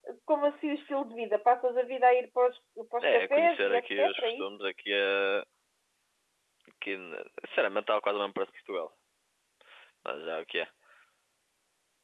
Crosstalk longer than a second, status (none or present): present